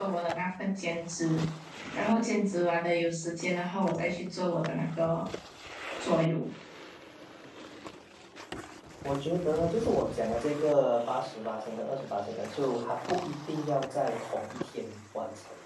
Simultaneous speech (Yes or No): No